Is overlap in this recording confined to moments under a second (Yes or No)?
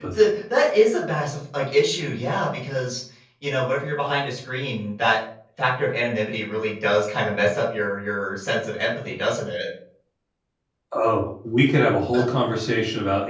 Yes